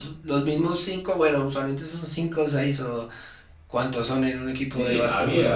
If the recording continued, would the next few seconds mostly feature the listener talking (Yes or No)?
Yes